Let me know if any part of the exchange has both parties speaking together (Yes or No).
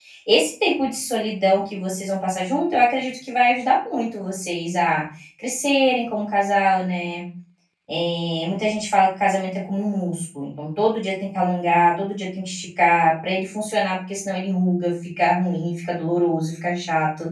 No